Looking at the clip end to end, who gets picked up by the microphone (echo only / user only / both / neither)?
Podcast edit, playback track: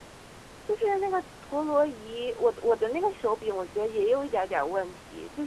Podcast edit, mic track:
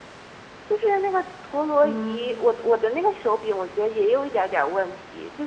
both